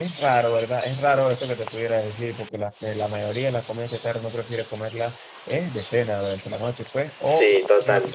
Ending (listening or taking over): listening